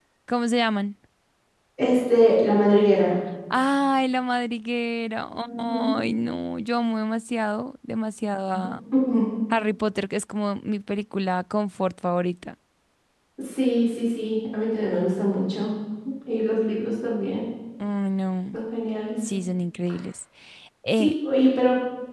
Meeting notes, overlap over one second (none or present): none